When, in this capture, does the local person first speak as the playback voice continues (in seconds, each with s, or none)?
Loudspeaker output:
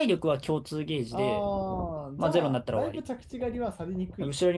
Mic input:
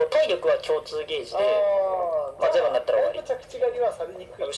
none